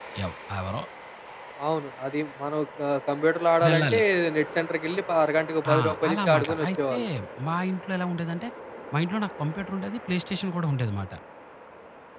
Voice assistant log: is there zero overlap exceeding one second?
No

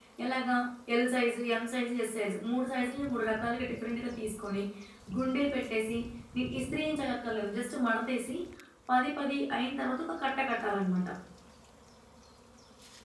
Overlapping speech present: No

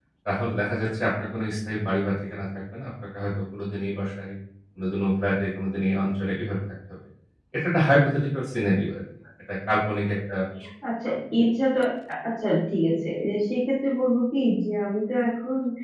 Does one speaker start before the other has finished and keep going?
No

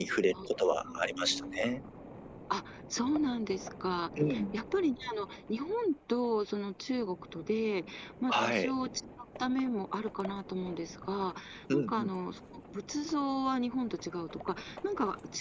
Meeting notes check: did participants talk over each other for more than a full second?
Yes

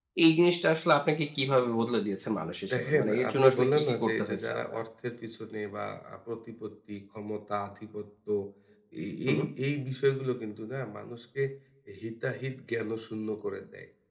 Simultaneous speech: Yes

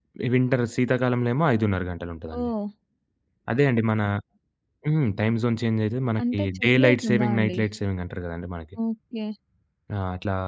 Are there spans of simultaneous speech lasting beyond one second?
Yes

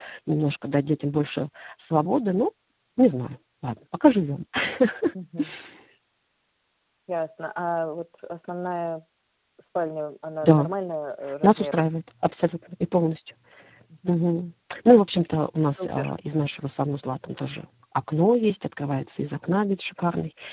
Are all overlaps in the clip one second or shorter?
Yes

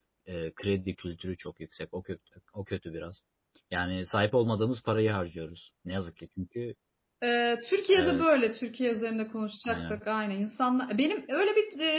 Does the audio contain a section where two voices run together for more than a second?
No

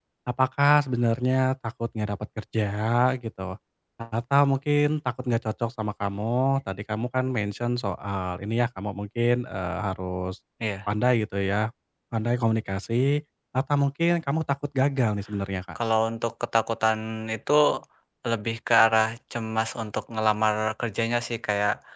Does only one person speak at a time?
Yes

